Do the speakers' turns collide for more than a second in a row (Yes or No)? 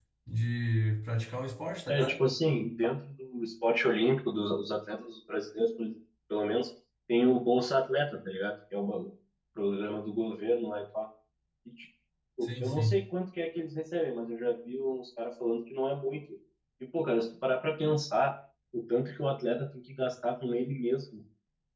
No